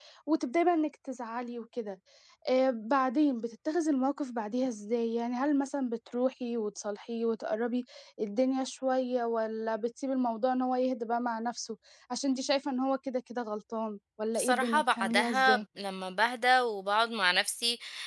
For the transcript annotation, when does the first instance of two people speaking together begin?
14.3 s

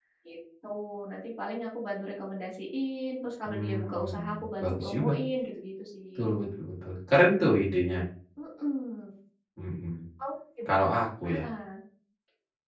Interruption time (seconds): 3.4 s

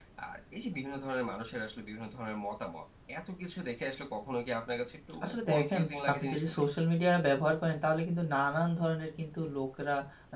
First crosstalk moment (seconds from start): 5.2 s

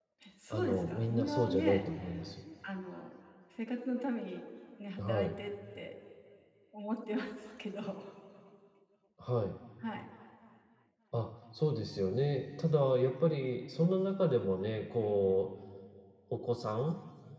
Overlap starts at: 0.5 s

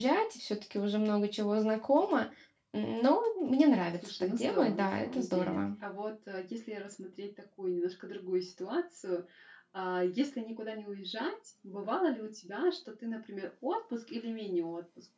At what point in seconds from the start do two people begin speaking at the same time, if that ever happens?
4.0 s

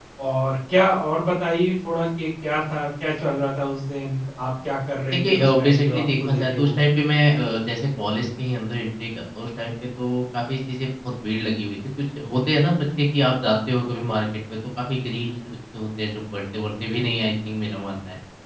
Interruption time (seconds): 5.2 s

